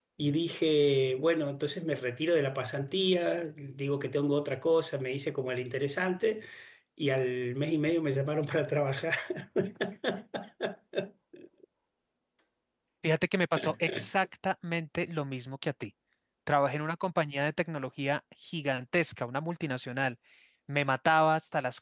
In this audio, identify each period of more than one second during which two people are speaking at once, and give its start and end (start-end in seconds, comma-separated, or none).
none